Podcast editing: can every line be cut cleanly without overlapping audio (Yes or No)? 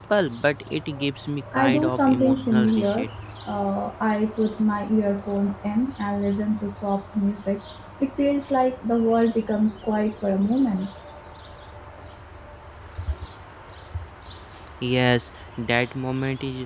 No